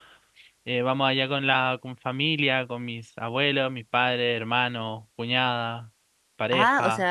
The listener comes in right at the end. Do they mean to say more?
Yes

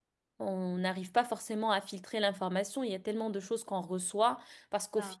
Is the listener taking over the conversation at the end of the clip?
No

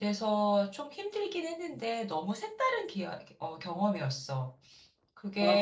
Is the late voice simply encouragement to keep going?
No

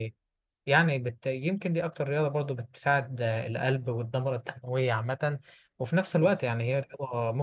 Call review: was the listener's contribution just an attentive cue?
Yes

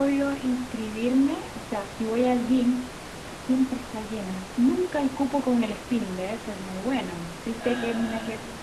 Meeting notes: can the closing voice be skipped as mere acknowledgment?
Yes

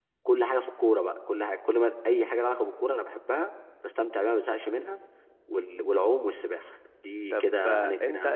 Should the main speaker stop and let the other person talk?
Yes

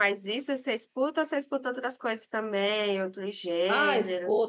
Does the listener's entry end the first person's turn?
Yes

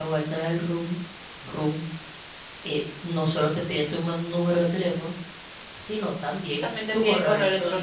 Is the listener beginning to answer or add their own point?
Yes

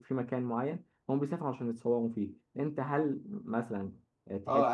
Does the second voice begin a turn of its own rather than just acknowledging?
Yes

